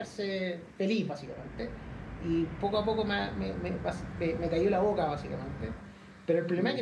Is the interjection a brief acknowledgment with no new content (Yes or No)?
Yes